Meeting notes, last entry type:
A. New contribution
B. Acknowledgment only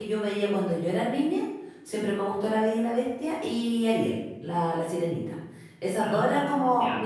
B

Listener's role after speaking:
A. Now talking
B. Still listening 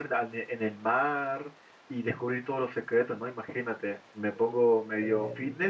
B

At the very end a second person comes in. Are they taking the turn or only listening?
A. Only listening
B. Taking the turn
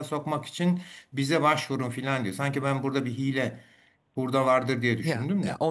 B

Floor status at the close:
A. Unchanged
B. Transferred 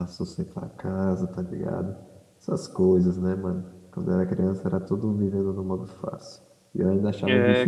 B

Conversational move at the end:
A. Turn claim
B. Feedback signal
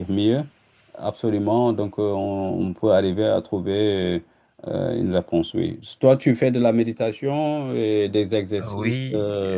A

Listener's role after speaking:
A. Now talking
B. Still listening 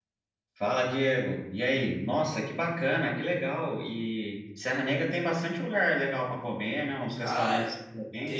A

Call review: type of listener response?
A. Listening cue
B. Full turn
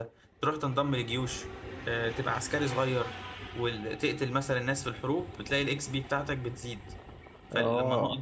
A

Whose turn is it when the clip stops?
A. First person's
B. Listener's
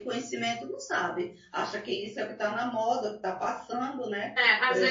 B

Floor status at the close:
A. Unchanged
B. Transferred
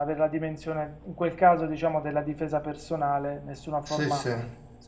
A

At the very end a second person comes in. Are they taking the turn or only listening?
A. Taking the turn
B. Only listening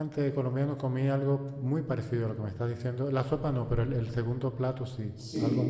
A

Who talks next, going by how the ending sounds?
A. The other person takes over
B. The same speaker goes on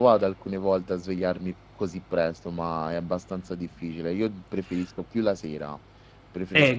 A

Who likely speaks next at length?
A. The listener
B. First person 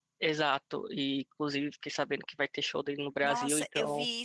A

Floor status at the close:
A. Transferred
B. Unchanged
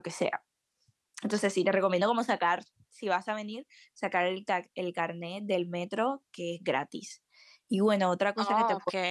B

